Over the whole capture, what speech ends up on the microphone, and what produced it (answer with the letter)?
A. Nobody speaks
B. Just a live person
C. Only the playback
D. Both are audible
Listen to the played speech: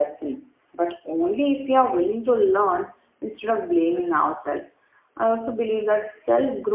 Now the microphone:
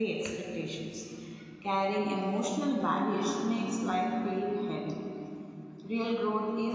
B